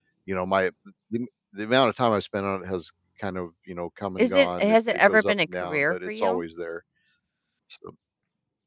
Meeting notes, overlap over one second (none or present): present